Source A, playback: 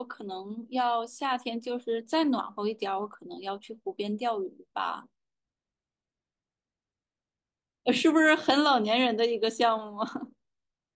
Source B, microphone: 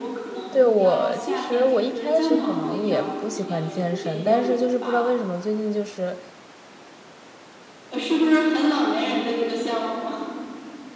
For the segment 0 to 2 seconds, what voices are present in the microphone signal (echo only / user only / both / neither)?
both